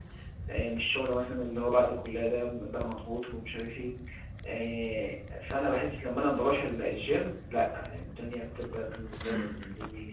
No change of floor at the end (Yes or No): No